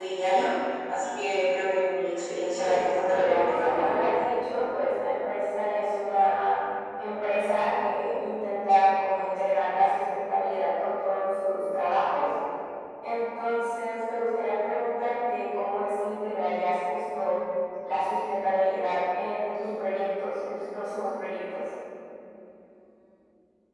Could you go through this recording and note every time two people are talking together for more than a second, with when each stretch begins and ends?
2.5-3.8

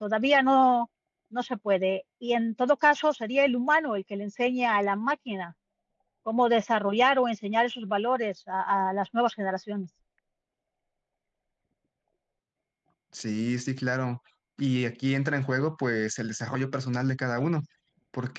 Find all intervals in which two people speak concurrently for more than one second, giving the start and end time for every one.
none

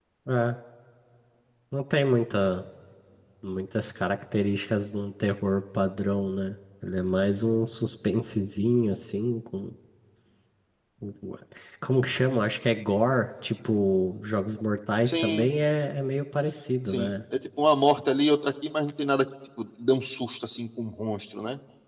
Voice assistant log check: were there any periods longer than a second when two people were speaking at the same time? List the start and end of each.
none

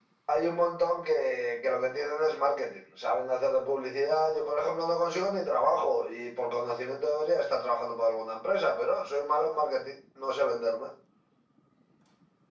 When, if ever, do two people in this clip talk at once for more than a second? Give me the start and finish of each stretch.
none

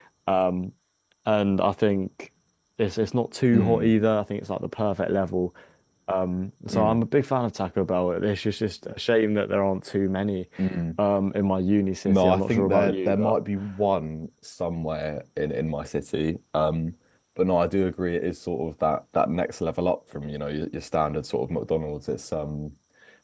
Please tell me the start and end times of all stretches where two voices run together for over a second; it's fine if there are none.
12.0-13.3

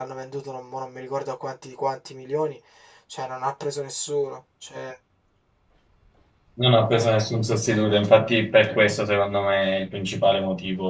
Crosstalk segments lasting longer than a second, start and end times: none

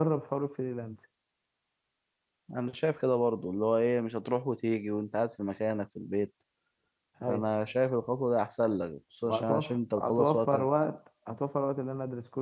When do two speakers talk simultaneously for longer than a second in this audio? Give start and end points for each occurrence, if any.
9.2-10.7

